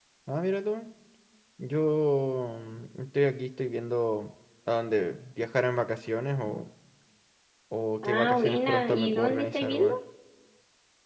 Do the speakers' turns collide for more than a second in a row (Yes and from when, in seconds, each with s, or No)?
Yes, from 8.0 s